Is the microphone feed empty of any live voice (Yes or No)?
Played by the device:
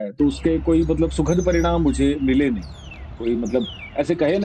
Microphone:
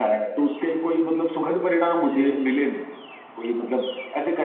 No